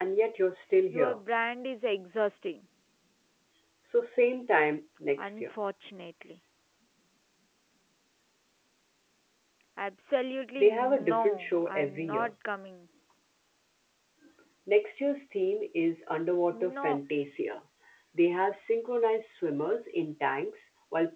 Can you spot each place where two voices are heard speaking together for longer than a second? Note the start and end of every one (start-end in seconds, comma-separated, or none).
10.6-12.3